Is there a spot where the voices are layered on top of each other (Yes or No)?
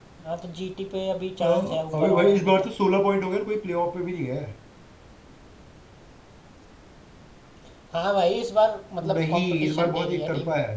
Yes